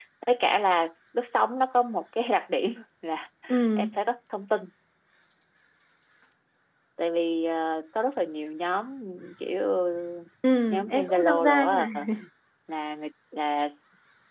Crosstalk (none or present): present